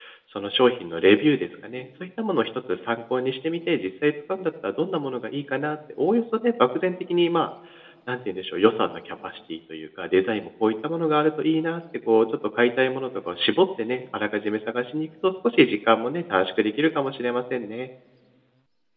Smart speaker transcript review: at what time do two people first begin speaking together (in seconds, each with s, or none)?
none